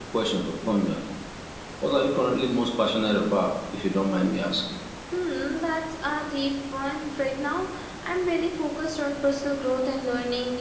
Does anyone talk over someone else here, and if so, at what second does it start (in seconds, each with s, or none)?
none